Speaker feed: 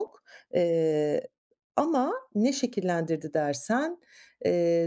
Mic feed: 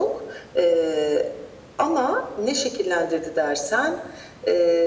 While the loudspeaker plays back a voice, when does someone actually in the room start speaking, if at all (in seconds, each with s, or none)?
none